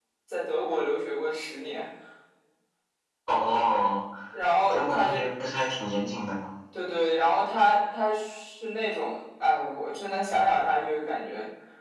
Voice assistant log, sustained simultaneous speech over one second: none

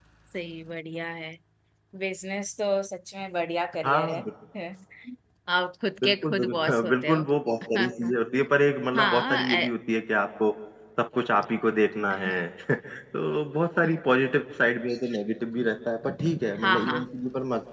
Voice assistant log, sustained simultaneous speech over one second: present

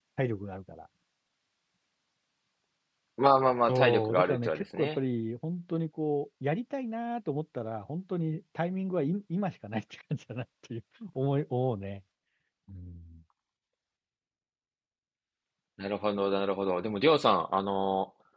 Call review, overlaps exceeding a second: present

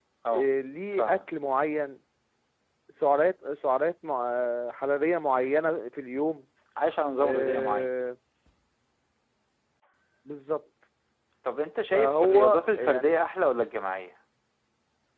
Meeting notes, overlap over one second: present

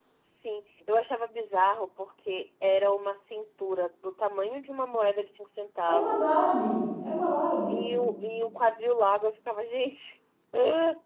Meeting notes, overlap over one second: none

